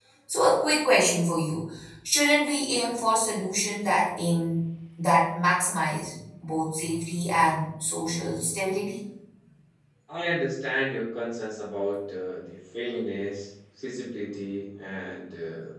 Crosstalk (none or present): none